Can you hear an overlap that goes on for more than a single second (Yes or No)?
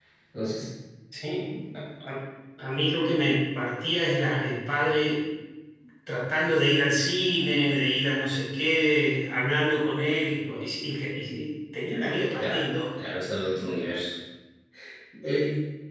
No